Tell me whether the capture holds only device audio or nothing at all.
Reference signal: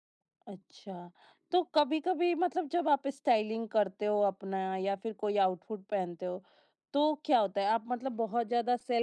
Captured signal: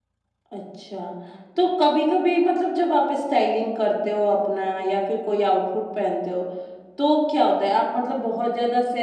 Yes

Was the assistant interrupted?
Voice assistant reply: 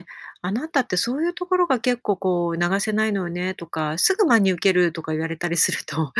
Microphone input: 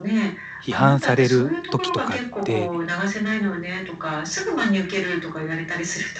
Yes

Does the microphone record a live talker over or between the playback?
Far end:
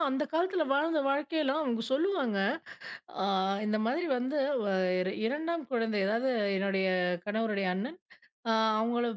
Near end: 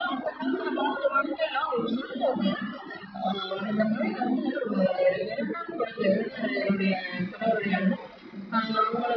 No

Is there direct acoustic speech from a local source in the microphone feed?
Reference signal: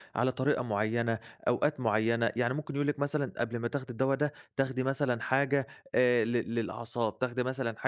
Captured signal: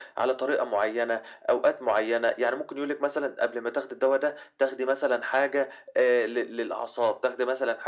No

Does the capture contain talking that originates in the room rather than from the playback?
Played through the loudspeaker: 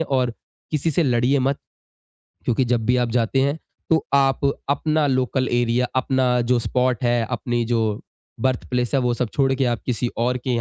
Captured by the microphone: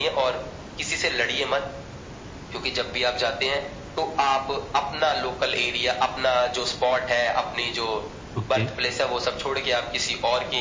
Yes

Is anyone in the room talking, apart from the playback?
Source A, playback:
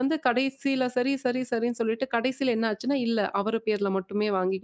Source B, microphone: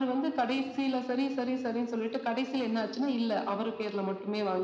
No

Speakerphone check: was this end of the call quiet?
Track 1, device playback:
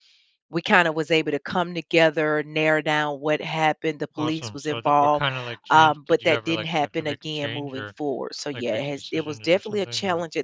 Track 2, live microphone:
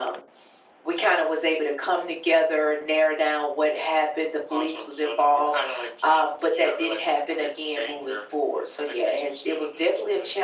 Yes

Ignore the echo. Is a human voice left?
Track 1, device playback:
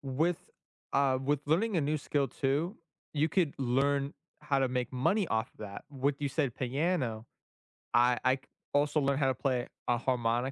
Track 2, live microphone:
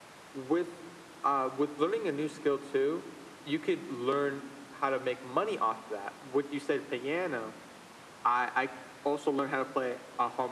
No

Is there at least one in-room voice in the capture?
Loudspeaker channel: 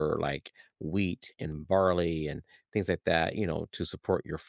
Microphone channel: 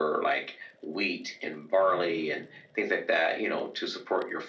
Yes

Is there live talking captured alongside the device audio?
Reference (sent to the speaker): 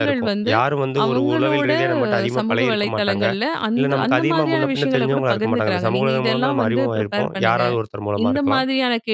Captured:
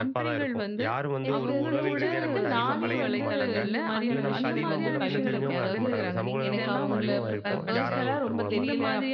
Yes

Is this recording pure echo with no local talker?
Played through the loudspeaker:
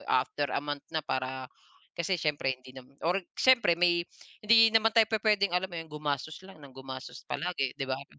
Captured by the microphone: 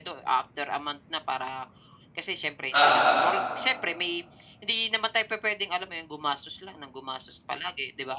No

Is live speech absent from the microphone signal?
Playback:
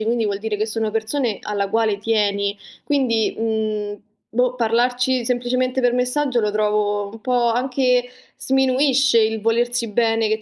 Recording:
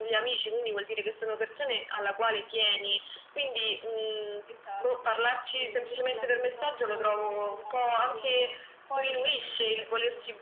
No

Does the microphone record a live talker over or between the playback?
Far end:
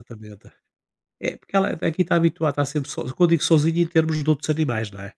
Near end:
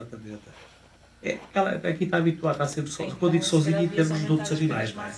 Yes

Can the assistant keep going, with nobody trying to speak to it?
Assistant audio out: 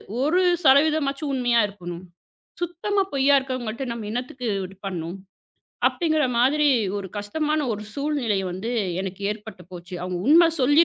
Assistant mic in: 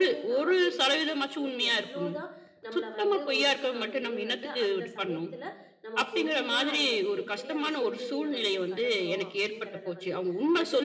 No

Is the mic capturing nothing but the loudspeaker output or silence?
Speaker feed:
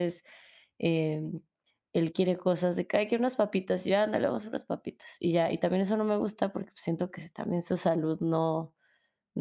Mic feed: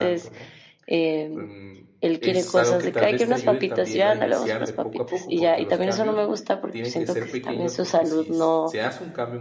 No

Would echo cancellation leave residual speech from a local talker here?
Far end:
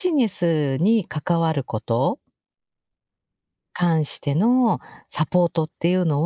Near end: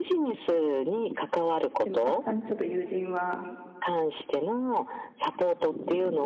Yes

